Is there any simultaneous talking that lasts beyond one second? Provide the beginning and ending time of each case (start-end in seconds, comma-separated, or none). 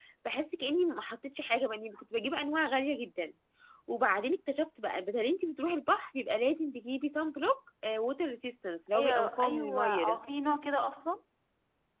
8.9-10.2